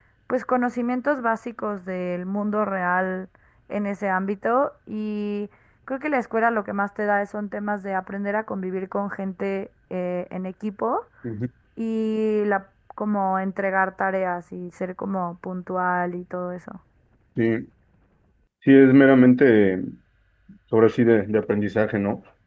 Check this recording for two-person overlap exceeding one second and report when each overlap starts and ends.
none

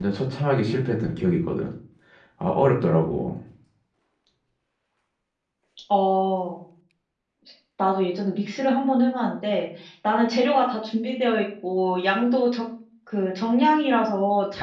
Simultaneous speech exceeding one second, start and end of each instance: none

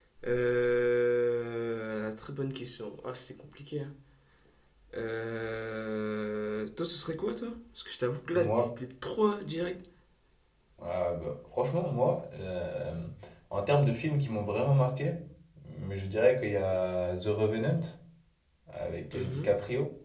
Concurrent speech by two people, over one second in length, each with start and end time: none

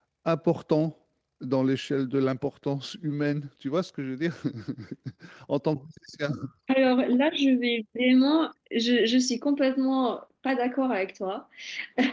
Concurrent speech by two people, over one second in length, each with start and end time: none

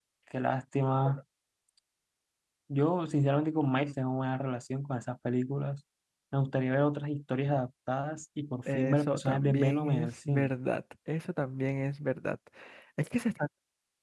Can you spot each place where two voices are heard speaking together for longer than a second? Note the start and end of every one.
8.7-10.5

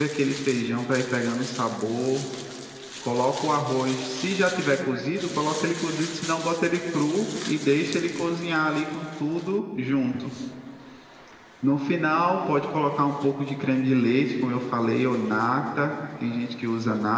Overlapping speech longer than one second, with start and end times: none

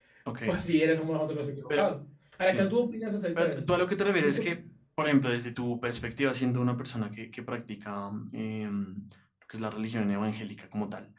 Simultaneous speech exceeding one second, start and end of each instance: none

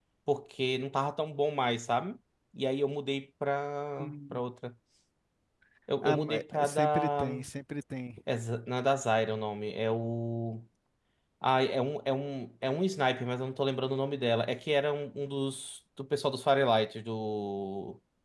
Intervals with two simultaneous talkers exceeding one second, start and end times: 6.0-7.2

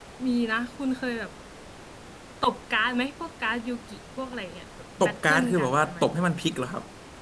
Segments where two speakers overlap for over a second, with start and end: 5.0-6.2

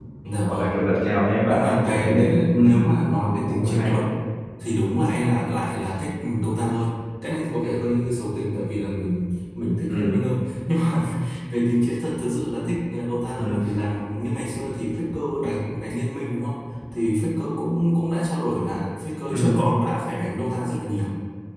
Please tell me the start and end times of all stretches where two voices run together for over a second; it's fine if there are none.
1.5-2.8

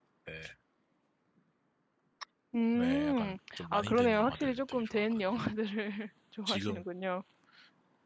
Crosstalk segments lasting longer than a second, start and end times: 2.7-5.4

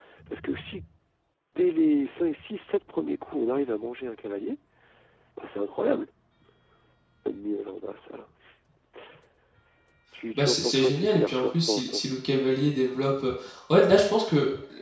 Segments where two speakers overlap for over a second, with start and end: 10.3-12.0

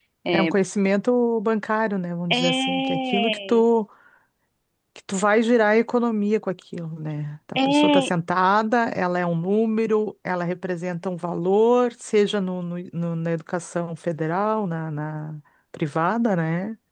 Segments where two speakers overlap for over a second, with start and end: 2.3-3.6

